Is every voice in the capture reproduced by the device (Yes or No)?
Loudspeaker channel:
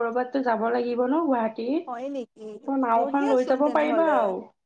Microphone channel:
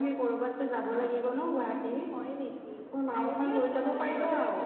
No